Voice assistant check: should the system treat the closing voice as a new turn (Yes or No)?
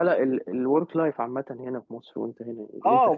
Yes